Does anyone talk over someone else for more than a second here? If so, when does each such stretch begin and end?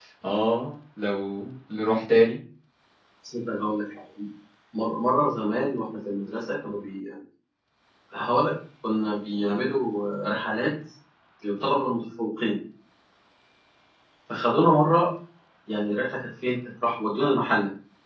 none

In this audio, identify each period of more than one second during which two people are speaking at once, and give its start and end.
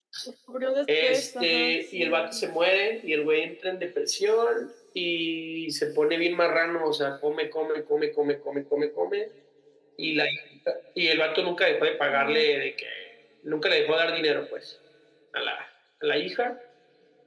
1.0-2.4

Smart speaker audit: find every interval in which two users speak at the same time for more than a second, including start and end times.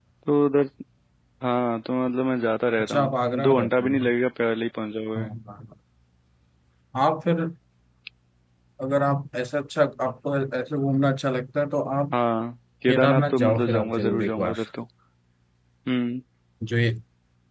2.8-4.1, 12.9-14.6

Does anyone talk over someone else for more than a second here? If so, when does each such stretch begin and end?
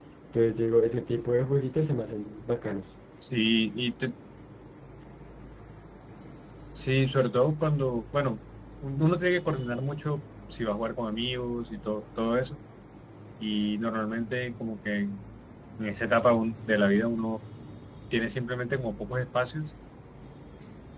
none

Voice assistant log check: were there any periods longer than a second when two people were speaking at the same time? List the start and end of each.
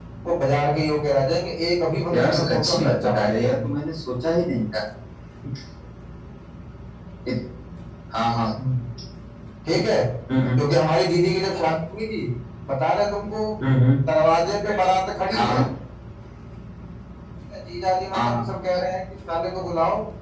2.1-3.7

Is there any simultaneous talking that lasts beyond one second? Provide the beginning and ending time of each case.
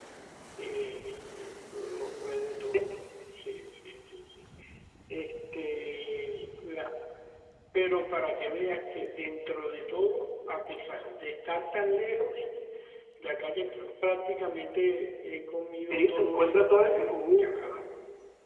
15.9-17.4

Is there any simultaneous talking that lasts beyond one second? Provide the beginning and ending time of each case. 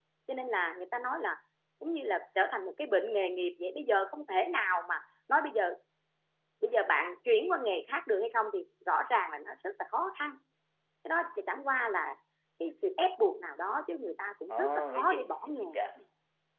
14.5-15.8

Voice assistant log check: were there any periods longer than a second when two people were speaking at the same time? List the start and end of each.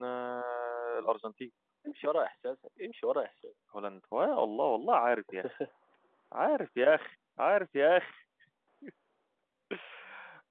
none

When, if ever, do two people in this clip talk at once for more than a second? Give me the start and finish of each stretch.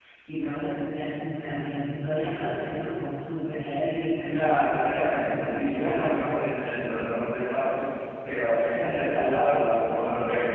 4.3-5.8

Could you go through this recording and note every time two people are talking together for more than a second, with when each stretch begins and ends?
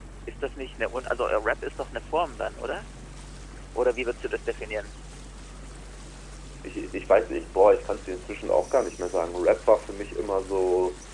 none

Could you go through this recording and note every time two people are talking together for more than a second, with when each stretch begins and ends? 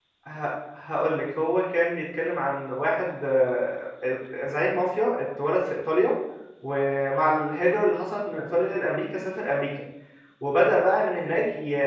none

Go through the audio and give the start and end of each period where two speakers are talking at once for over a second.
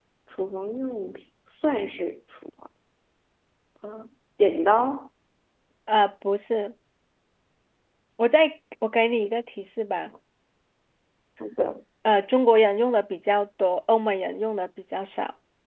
none

